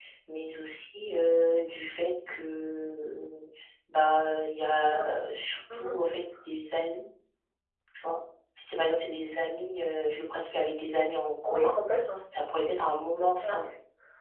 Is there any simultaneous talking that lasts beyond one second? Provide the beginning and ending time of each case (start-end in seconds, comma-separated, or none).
none